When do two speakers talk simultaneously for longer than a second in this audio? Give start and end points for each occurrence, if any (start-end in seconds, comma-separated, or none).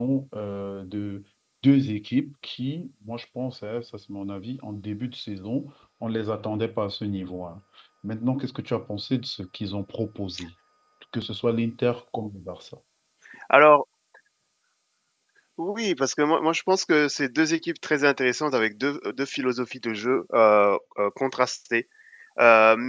none